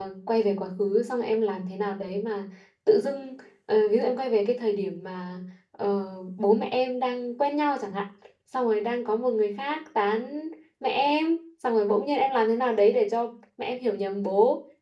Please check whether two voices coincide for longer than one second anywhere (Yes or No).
No